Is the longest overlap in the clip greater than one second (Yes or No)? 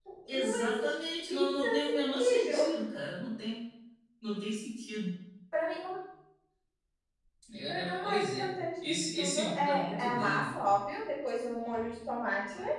Yes